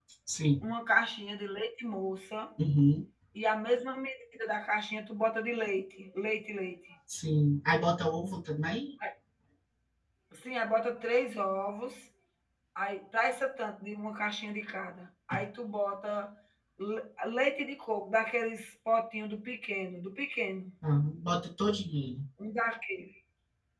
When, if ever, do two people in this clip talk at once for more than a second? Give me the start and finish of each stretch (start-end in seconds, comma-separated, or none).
none